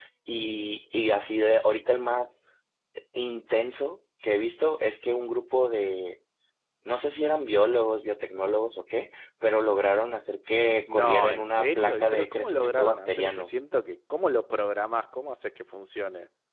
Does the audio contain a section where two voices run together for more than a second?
Yes, from 10.9 s

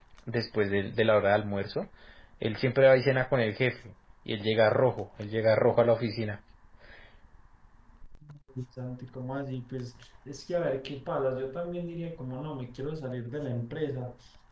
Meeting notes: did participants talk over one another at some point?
No

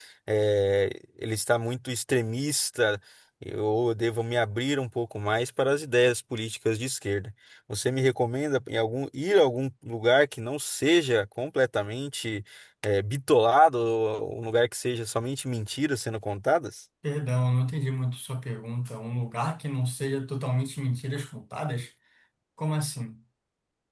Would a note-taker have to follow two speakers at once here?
No

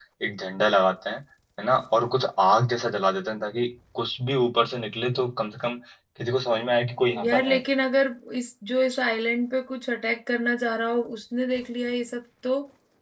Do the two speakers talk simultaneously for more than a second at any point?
No

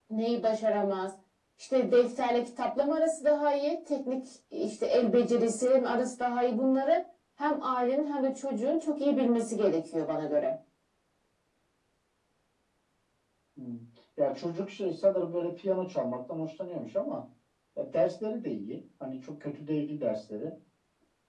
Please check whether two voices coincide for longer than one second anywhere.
No

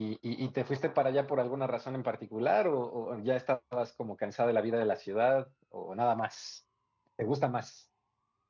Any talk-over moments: No

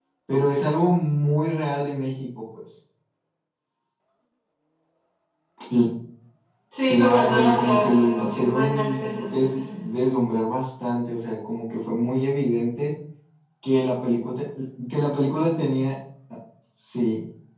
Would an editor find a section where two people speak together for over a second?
Yes, from 6.9 s

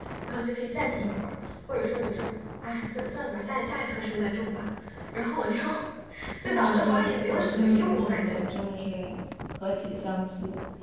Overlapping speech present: Yes, from 6.5 s

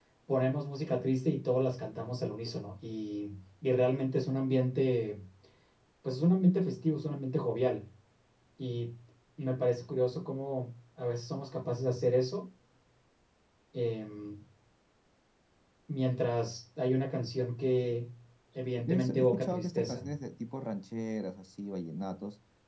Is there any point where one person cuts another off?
Yes, from 18.9 s

